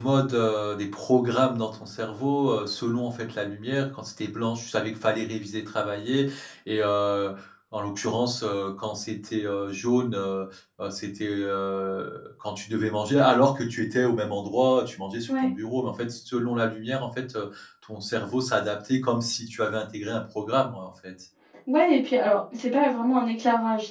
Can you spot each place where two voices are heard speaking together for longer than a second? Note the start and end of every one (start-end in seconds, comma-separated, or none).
none